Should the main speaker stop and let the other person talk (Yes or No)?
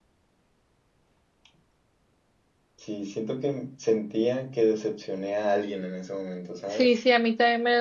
Yes